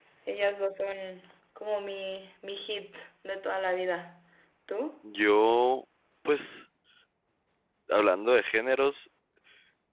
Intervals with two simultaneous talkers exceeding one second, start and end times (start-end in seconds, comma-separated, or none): none